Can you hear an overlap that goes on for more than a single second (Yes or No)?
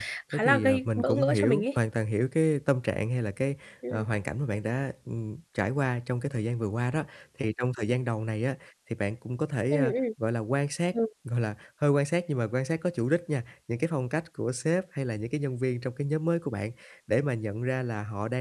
Yes